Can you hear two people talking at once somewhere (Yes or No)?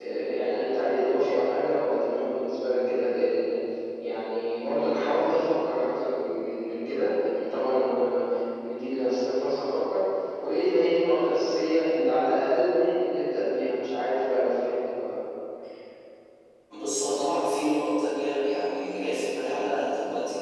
No